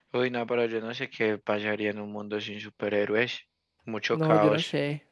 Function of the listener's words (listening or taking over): taking over